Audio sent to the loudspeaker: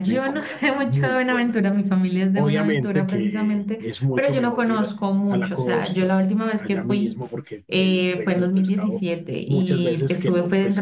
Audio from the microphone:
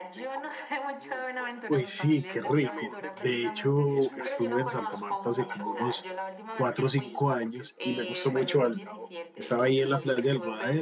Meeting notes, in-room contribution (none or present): present